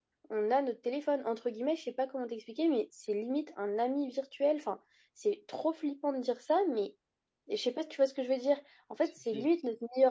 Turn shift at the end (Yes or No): No